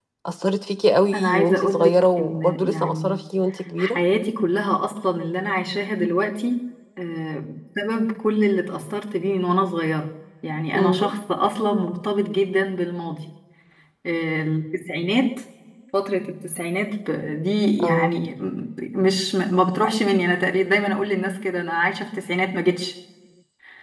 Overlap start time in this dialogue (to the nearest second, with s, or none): 1 s